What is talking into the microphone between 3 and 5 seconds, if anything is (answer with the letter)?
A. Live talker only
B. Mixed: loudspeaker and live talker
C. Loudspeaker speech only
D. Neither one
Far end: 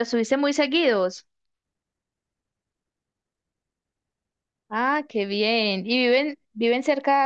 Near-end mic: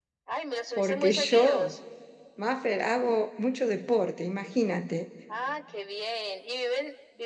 A